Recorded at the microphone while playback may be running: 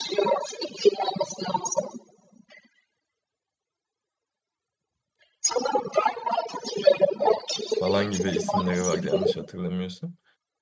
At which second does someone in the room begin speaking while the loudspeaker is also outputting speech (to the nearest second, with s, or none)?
8 s